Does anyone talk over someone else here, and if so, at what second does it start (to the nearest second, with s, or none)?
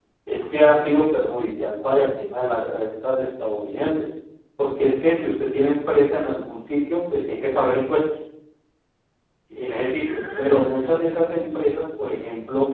10 s